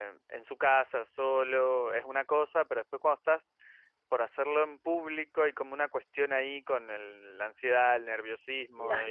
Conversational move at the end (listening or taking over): listening